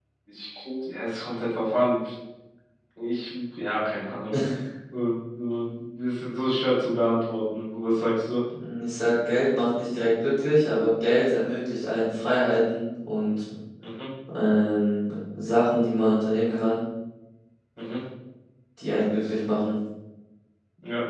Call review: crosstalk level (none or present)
none